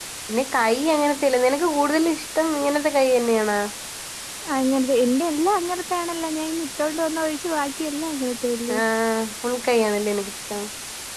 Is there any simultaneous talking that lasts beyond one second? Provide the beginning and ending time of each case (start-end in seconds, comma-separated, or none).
none